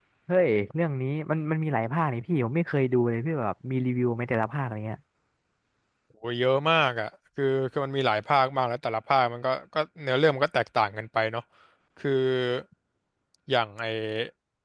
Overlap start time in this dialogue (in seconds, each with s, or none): none